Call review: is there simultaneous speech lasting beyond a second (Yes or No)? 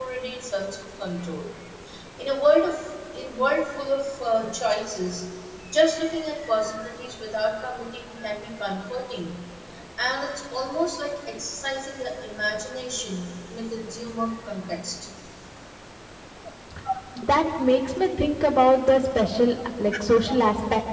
No